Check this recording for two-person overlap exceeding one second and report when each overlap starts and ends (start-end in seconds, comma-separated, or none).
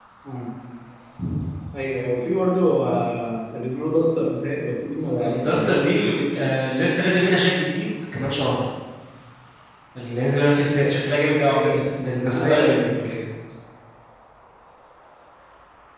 5.2-6.5